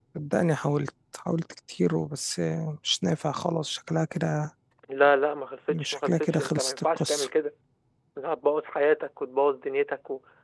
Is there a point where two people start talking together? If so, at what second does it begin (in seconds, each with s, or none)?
5.7 s